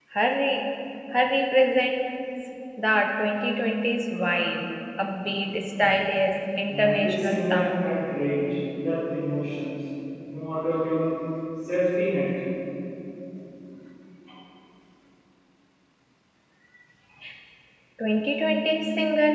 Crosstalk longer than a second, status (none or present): present